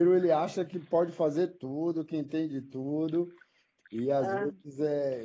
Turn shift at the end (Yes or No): No